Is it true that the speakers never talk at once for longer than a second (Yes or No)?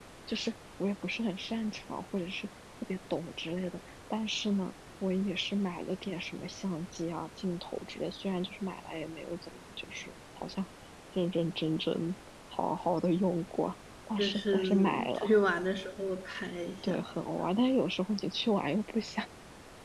No